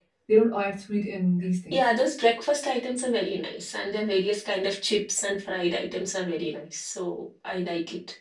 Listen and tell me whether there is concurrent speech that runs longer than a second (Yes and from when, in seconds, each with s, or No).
No